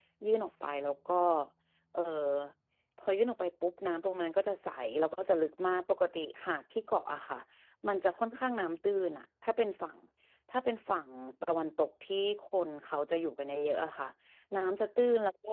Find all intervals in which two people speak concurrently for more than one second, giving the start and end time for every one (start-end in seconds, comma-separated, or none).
none